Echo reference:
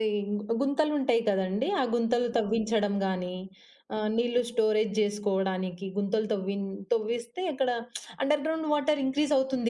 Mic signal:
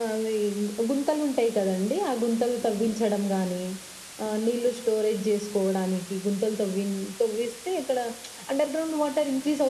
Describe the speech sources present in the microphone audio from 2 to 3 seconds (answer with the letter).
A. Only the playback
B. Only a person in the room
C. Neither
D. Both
A